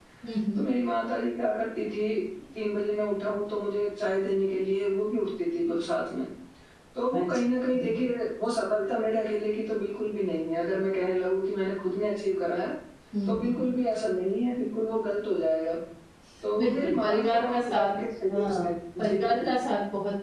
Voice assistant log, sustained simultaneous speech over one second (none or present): present